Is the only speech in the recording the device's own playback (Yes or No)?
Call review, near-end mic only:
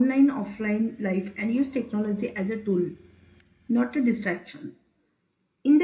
Yes